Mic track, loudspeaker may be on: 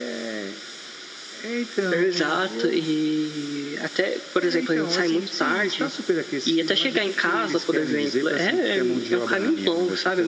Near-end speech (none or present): none